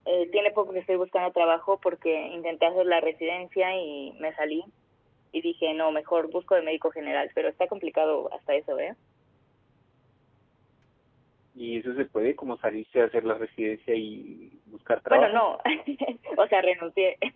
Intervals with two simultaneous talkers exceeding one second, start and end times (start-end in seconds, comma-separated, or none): none